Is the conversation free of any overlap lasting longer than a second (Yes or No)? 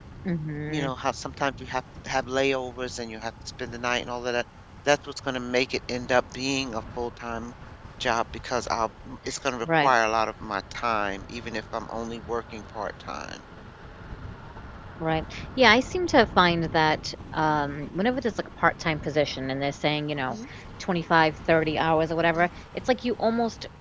Yes